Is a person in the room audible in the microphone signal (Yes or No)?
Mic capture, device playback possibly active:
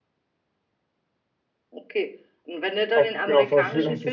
Yes